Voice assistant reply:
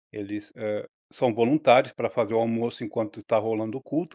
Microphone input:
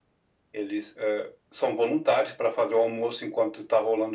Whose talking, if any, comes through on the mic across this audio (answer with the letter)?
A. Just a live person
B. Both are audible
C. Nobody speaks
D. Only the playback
D